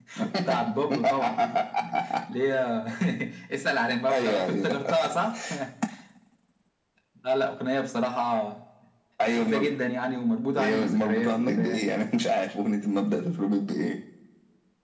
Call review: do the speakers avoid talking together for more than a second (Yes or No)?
No